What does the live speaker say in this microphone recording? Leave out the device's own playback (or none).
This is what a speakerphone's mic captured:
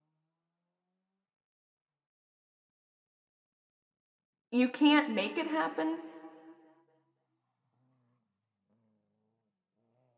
you can't make it happen.